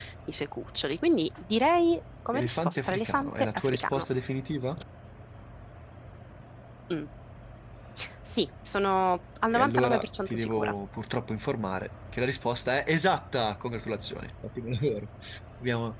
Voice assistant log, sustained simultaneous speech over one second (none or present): present